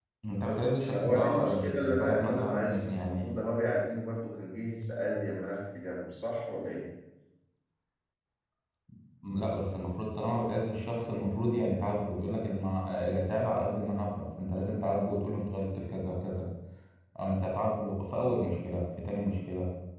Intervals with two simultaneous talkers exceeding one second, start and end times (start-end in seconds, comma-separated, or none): 0.9-3.3